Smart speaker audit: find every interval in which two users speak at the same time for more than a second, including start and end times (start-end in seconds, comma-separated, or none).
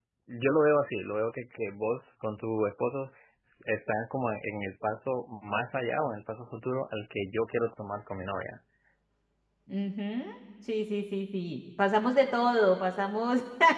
none